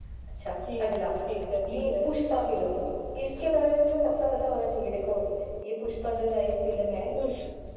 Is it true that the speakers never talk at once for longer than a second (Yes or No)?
Yes